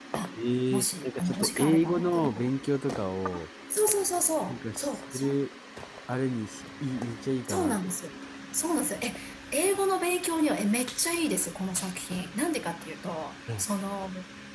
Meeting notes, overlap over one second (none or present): present